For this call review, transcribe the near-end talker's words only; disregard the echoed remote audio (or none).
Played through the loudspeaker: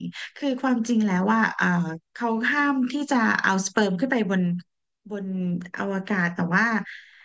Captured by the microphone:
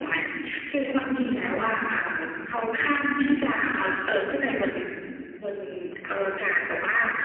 none